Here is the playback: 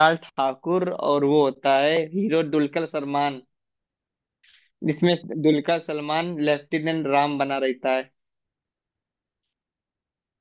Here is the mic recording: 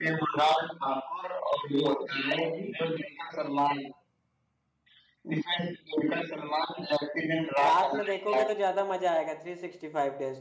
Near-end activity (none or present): present